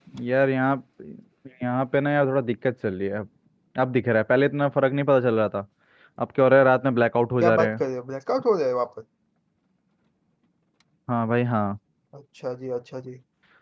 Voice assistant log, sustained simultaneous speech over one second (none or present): none